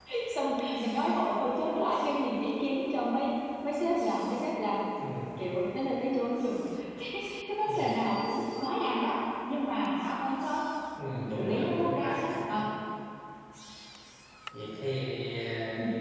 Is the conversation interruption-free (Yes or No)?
No